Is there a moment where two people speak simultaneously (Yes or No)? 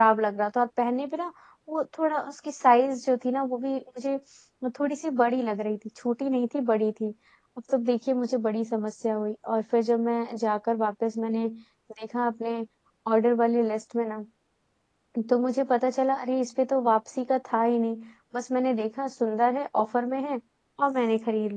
No